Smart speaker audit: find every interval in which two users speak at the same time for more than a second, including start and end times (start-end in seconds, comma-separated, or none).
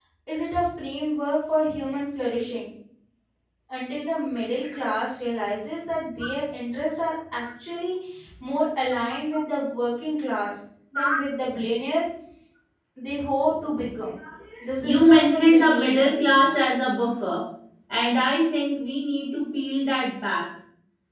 14.8-16.4